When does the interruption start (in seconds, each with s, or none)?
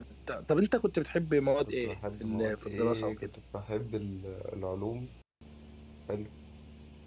1.6 s